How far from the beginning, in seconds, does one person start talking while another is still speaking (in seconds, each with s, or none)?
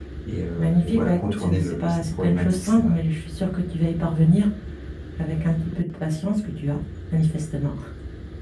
0.6 s